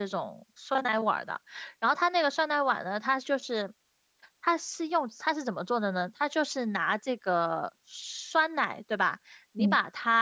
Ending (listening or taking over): listening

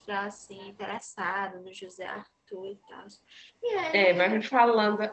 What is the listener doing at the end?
taking over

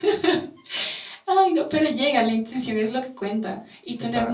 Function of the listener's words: listening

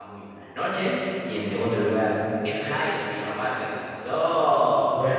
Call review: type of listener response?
taking over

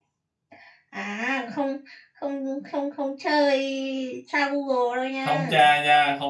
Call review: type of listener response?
taking over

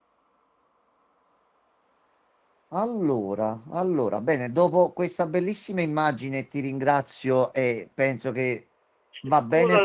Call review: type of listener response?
listening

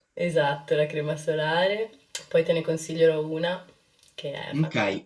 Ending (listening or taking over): taking over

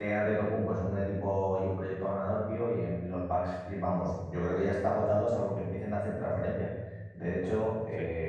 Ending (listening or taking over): listening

